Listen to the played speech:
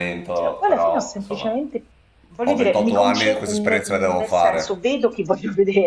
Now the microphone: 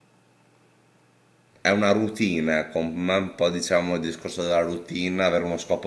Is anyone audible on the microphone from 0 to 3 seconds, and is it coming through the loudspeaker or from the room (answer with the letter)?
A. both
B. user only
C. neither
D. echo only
B